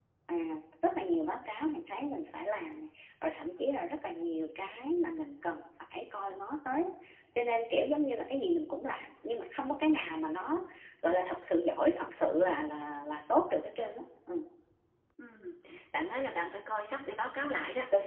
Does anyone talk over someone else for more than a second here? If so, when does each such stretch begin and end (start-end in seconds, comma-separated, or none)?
none